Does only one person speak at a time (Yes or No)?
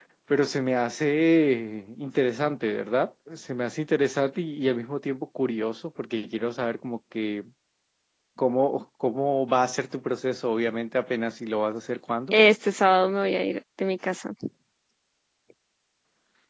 Yes